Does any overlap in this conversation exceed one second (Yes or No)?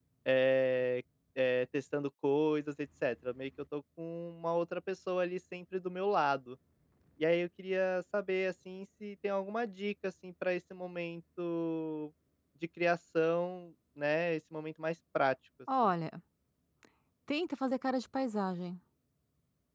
No